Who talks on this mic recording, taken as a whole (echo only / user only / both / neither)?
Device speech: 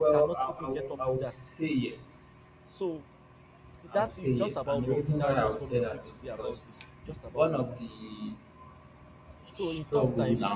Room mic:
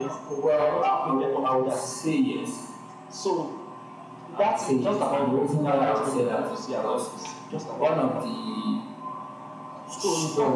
echo only